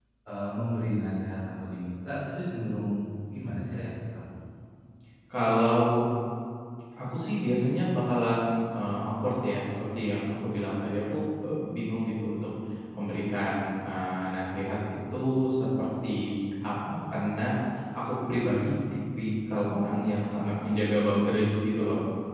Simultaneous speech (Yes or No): No